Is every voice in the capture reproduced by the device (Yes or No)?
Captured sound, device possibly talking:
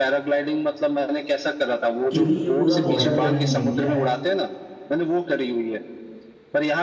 No